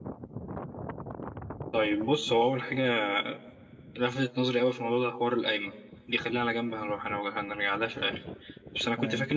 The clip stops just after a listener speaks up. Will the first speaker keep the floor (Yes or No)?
Yes